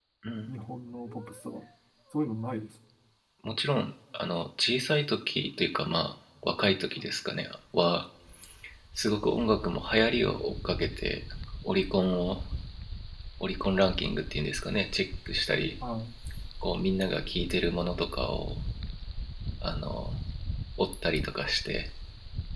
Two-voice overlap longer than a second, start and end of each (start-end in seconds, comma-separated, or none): none